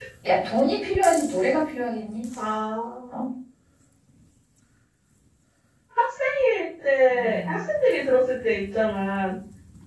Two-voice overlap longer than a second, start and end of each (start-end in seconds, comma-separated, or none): none